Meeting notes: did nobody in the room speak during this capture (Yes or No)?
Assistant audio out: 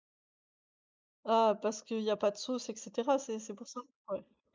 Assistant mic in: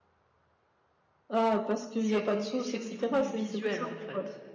No